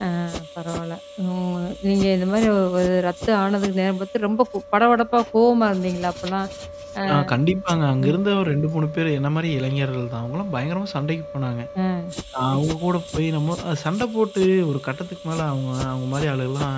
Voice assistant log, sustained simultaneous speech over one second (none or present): none